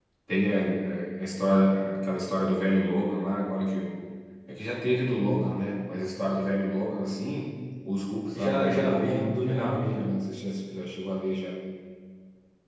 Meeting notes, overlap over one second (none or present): present